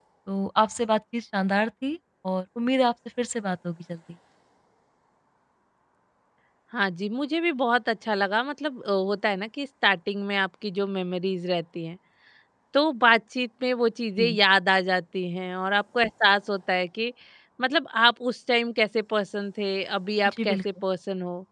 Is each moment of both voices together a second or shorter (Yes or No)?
Yes